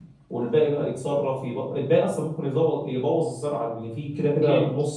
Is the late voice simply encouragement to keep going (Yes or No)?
Yes